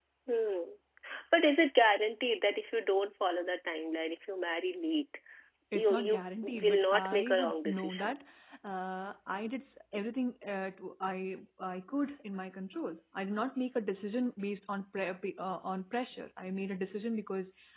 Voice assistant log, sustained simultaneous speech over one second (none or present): present